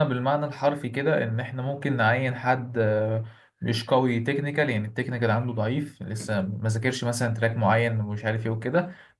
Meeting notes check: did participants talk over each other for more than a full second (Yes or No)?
No